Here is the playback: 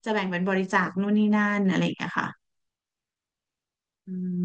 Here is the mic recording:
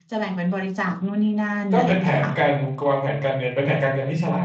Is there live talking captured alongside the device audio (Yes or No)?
Yes